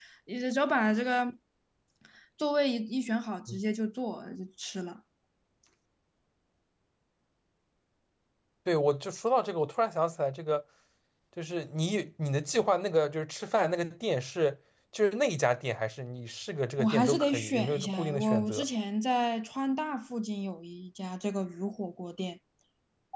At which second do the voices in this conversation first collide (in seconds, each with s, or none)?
16.8 s